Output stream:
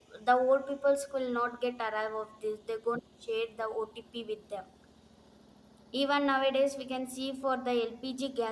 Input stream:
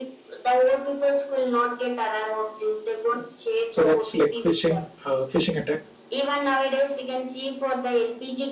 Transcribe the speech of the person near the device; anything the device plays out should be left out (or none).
so that's like phishing uh, phishing attack